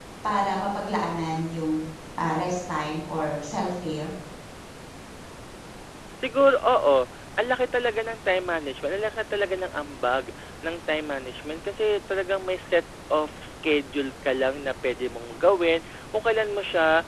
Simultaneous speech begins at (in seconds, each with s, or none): none